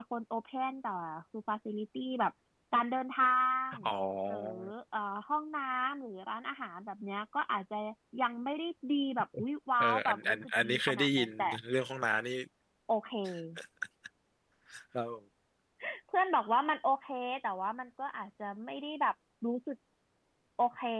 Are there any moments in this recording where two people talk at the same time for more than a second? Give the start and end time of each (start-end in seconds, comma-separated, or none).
9.8-11.3